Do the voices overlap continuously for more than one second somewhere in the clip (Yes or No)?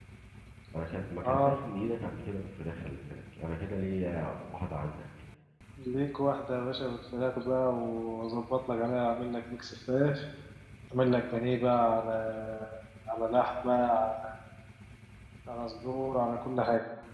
No